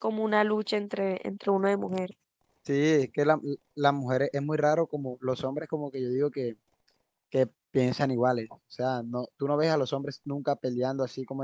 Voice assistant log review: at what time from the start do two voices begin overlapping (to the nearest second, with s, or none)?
none